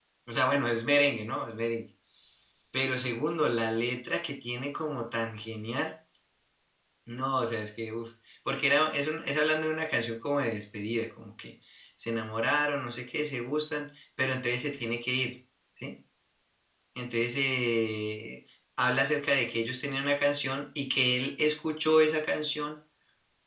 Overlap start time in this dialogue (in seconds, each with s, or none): none